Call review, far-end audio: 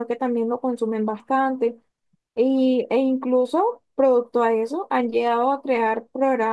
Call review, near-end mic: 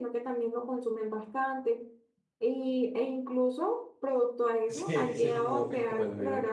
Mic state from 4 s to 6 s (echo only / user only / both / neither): both